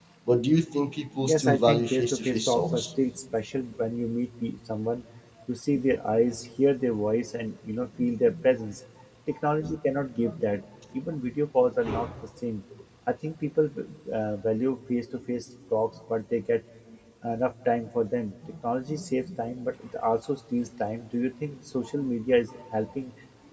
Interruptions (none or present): present